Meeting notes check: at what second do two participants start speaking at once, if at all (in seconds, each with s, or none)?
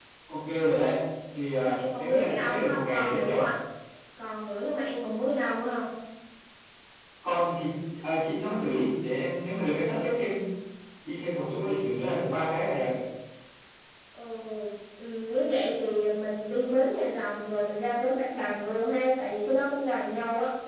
1.6 s